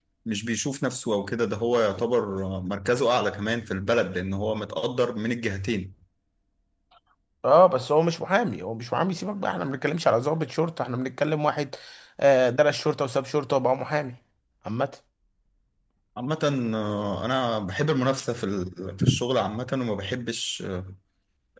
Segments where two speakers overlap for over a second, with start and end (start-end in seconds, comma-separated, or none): none